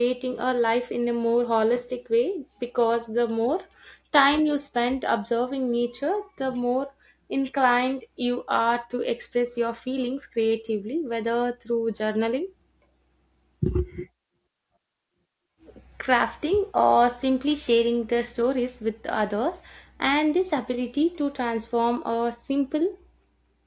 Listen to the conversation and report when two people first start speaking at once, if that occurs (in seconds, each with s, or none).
none